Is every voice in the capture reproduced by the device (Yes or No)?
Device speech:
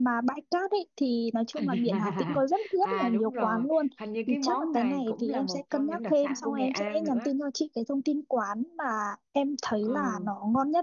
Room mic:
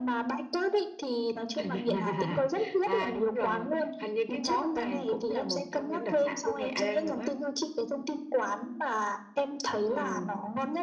Yes